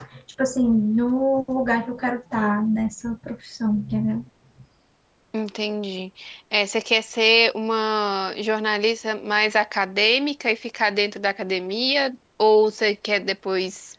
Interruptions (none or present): none